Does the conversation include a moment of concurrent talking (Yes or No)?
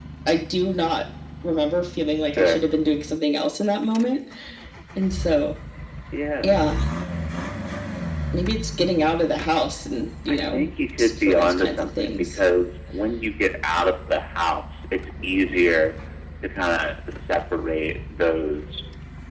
Yes